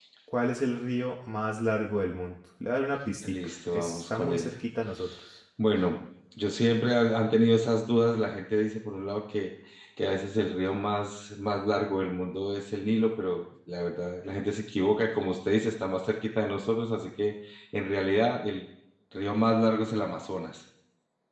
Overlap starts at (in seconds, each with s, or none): 3.2 s